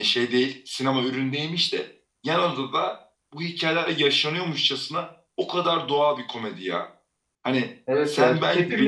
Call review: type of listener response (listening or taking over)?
taking over